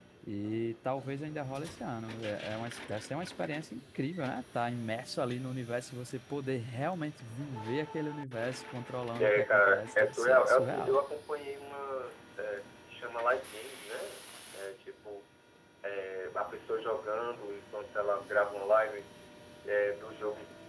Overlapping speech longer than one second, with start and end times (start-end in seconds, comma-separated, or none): 9.2-11.0